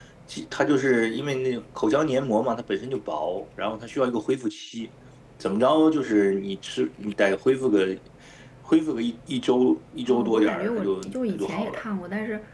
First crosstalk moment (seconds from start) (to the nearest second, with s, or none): 10 s